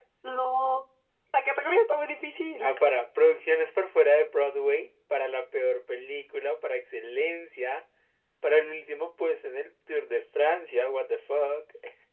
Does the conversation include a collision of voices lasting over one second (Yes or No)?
No